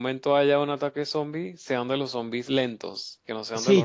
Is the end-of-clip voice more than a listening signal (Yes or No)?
Yes